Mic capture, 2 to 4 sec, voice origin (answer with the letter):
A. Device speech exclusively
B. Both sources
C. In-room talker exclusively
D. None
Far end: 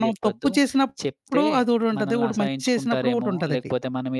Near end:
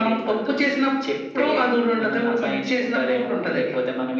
A